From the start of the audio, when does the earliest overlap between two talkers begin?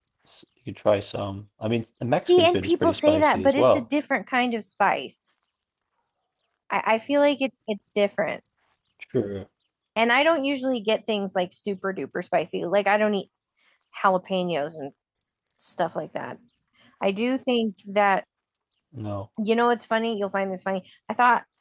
2 s

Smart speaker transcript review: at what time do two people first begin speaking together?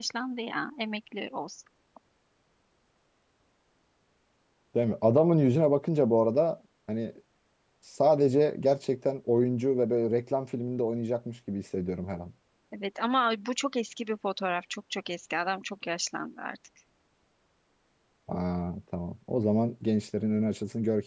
none

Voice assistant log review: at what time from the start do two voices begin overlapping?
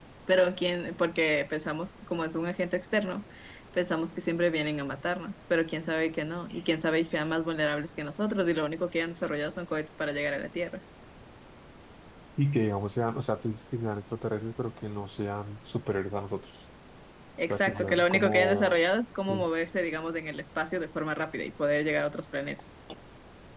18 s

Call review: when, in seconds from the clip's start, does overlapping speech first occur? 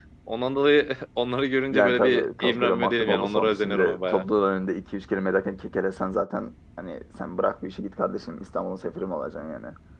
2 s

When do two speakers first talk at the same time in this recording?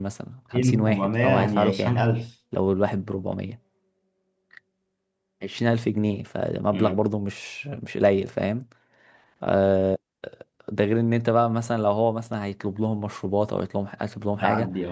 1 s

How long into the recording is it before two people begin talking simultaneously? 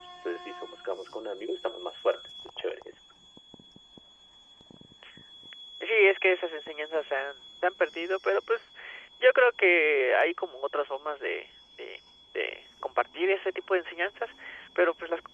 none

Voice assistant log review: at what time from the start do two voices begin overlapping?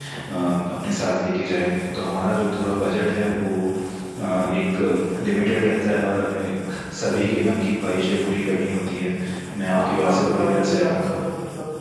10 s

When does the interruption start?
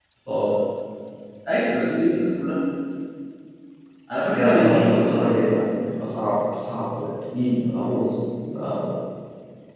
4 s

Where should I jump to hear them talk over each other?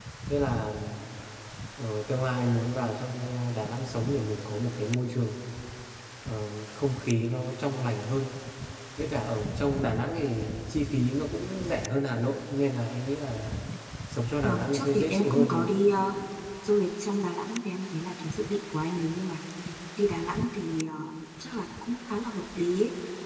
14 s

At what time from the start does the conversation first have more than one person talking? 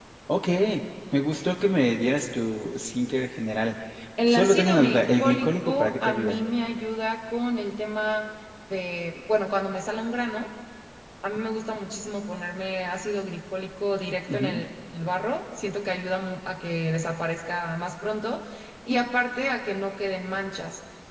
4 s

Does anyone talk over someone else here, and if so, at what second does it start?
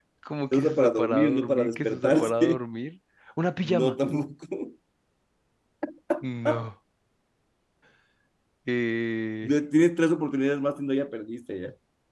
1 s

